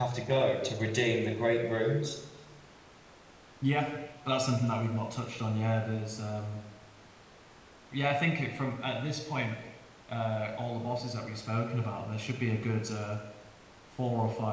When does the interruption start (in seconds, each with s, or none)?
none